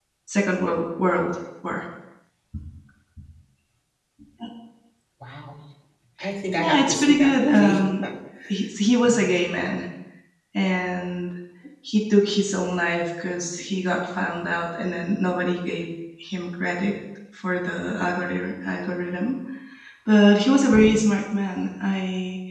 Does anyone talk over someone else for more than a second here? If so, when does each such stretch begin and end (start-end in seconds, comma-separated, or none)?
6.6-7.9